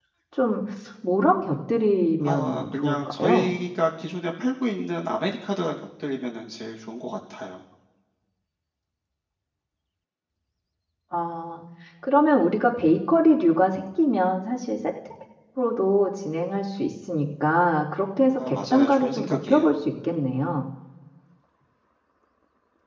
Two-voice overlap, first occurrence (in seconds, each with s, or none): 2.2 s